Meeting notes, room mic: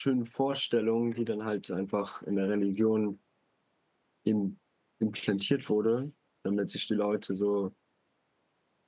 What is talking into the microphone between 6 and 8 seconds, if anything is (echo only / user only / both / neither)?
user only